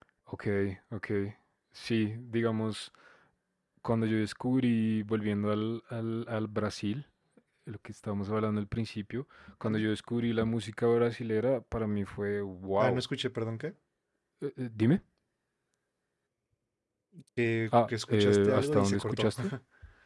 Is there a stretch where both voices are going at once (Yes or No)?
Yes